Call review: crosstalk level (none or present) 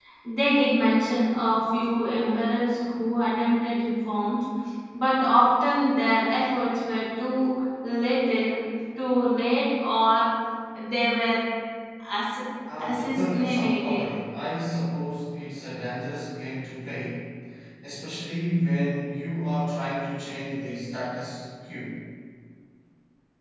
present